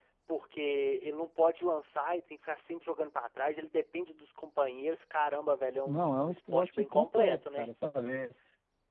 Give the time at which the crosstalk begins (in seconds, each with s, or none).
5.9 s